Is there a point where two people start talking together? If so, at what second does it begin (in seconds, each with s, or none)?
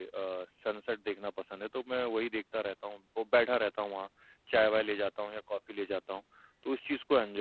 none